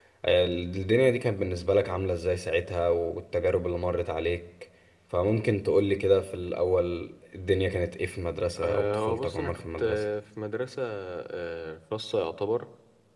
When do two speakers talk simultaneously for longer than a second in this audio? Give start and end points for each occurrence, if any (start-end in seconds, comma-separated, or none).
8.6-10.0